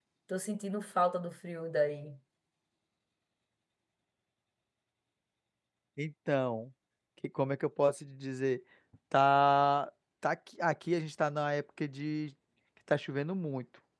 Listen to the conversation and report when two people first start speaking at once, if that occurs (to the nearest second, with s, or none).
none